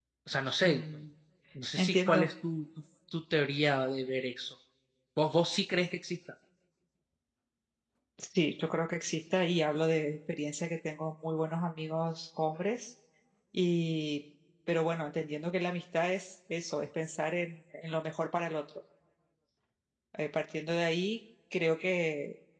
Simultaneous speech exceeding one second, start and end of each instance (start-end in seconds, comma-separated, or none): none